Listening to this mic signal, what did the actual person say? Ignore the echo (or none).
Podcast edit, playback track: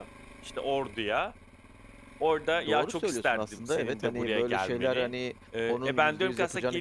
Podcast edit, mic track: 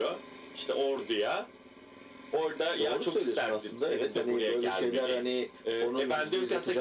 none